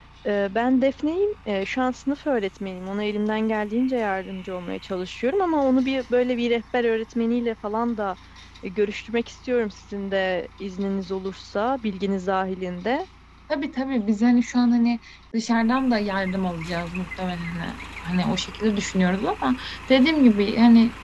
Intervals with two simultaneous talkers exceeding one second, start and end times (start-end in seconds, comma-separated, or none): none